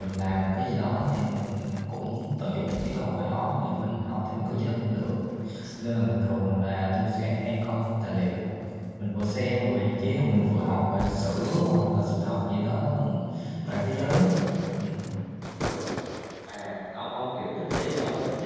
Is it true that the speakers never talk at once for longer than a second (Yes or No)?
Yes